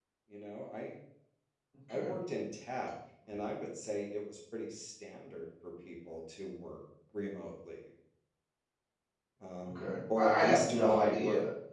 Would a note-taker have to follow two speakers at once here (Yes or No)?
Yes